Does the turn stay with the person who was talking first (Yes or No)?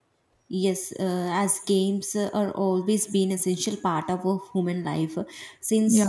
Yes